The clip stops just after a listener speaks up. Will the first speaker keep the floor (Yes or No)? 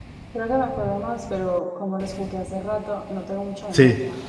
Yes